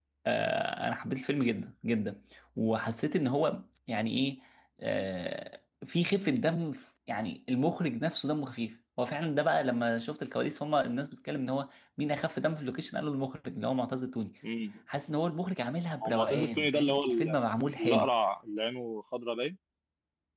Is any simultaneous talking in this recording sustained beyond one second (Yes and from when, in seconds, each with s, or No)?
Yes, from 16.0 s